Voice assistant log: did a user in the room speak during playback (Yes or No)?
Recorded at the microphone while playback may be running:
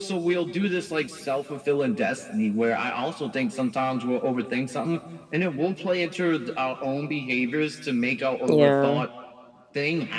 Yes